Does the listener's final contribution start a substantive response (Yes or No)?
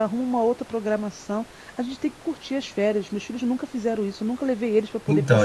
Yes